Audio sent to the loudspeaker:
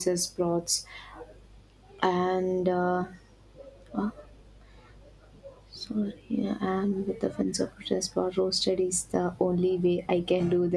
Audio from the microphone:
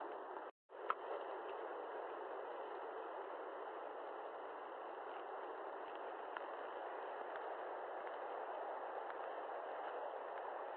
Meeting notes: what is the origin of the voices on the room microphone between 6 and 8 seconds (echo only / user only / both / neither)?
neither